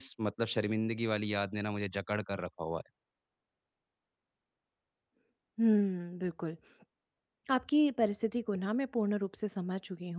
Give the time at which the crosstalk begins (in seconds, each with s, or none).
none